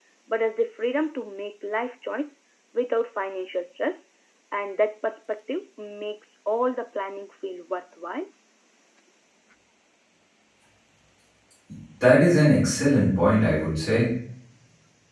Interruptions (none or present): none